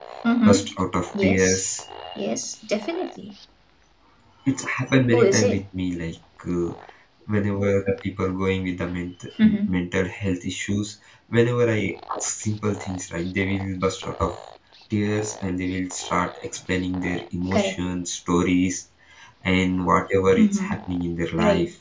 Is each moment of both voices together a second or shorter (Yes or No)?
Yes